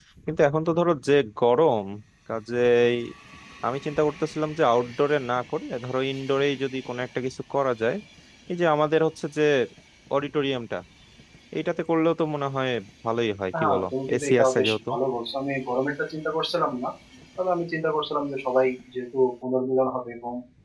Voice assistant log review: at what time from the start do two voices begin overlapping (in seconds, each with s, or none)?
13.6 s